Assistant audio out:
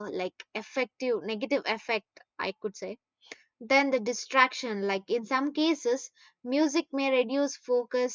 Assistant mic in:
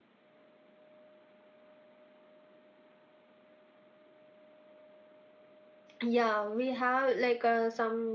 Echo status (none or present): none